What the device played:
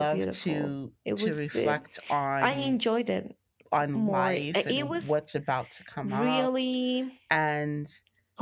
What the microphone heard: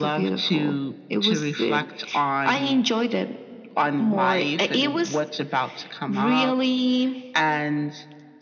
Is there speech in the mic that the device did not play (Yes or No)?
No